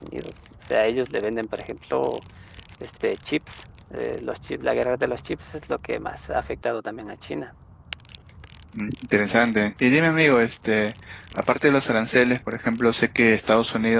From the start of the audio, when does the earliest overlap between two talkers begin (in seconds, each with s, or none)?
none